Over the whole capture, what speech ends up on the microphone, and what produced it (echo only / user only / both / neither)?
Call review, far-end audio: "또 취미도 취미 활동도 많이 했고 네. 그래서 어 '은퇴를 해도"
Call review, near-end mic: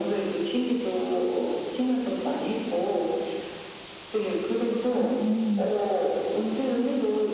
both